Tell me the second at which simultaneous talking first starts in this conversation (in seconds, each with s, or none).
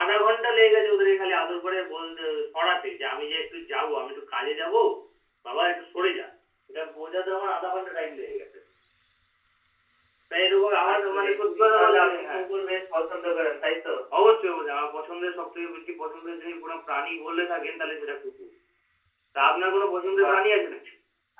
10.9 s